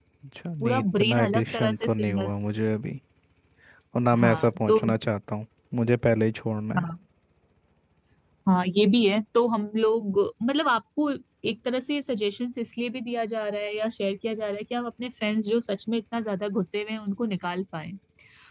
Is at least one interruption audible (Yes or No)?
Yes